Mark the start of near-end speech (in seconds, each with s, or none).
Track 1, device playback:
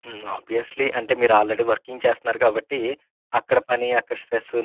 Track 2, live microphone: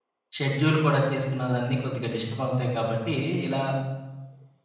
0.4 s